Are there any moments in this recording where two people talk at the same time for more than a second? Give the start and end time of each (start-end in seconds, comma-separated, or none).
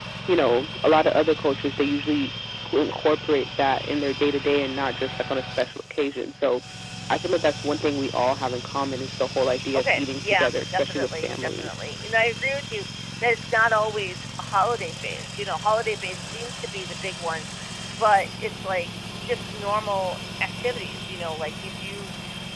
9.8-11.7